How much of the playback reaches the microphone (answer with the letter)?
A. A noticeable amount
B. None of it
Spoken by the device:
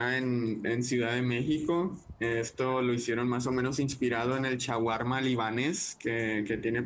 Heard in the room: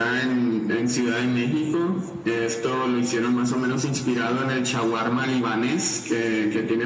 A